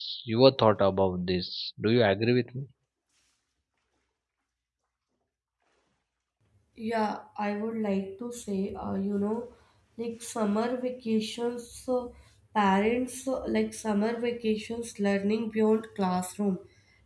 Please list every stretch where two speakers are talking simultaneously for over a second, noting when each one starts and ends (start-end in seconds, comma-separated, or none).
none